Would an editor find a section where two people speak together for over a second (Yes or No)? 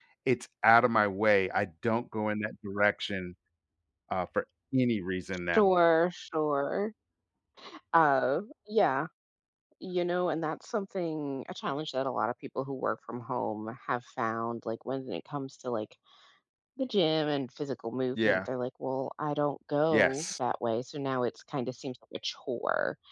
No